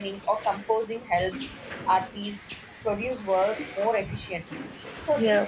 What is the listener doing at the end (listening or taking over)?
listening